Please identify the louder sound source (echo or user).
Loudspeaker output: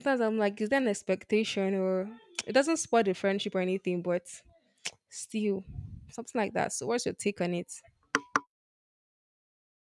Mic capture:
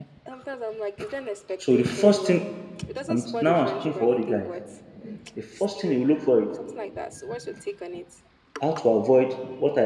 user